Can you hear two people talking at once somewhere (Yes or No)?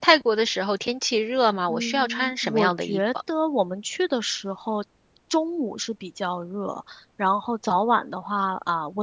Yes